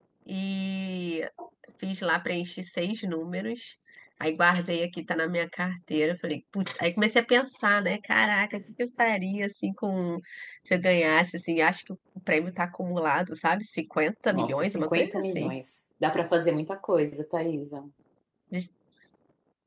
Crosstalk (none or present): present